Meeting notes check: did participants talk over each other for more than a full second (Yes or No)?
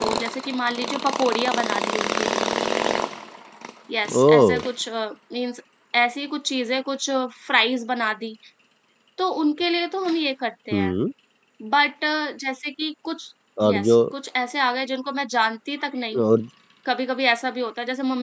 No